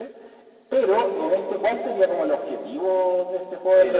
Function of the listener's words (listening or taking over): taking over